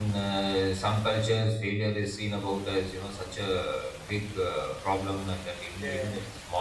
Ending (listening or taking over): listening